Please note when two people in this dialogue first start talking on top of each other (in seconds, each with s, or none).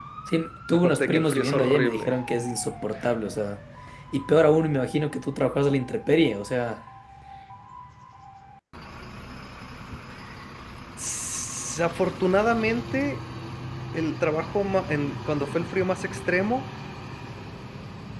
0.7 s